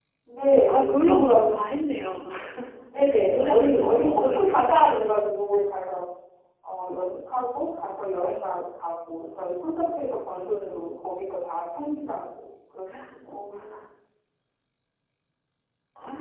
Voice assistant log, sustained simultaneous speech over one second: present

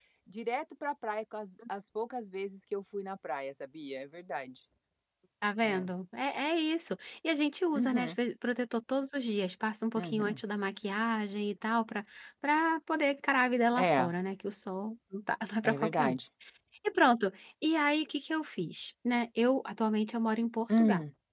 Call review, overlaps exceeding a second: none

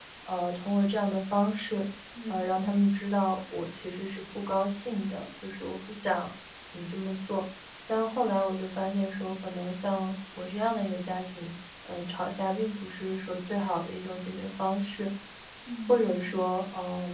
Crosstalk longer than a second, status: none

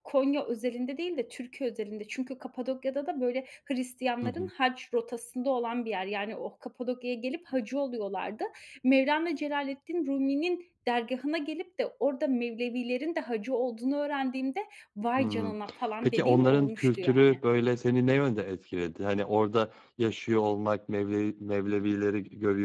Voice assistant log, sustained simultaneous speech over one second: present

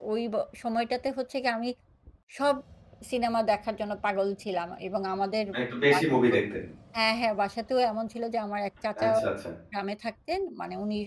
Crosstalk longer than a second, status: none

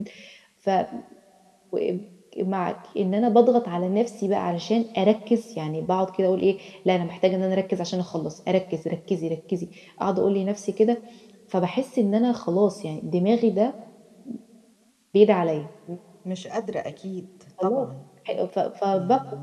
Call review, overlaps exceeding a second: none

